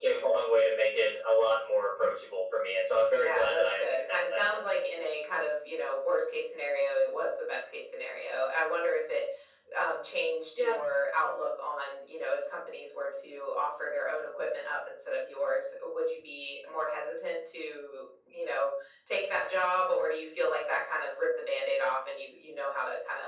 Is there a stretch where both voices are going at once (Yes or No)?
Yes